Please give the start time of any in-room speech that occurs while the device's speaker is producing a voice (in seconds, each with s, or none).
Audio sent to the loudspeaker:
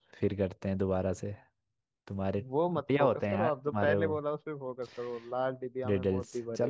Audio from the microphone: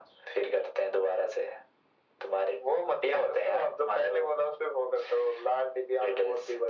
none